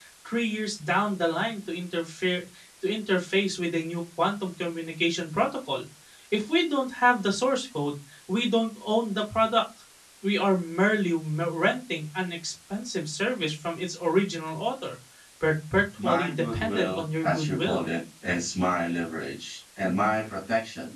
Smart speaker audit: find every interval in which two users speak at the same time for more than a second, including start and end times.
16.0-17.8

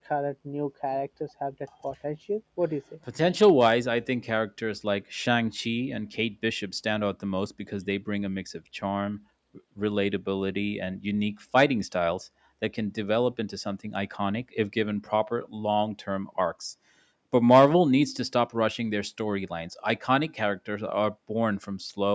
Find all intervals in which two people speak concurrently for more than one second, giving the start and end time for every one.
none

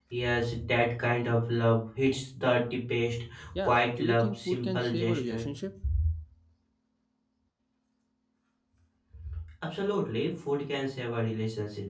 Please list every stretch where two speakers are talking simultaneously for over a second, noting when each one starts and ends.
3.5-5.5

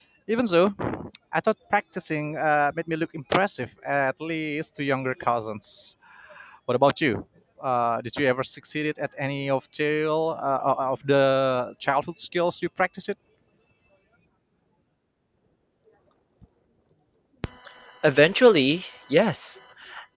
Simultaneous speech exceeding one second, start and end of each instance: none

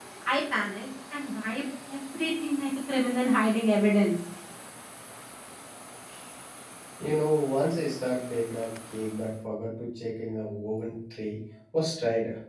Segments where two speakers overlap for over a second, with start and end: none

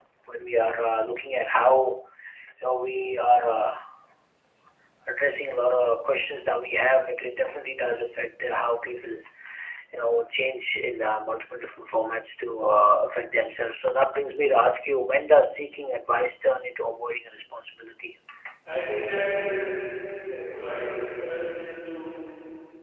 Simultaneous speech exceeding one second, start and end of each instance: none

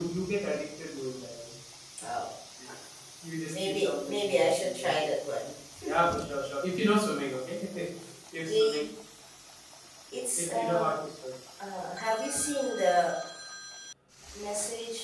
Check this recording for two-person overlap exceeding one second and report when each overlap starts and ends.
3.5-5.1

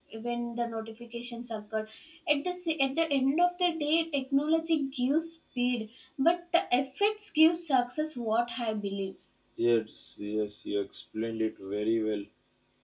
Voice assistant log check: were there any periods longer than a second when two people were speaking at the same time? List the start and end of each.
none

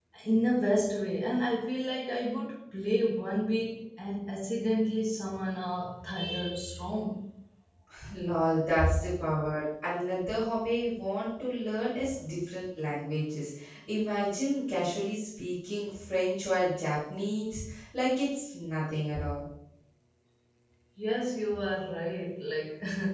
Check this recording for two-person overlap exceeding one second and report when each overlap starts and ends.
none

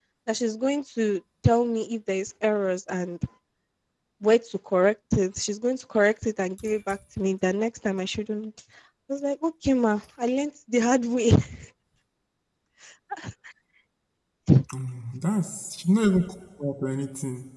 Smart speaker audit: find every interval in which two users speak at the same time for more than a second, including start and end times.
none

